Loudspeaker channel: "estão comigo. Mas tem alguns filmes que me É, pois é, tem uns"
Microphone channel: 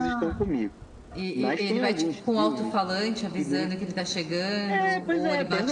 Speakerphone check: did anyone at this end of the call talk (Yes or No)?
Yes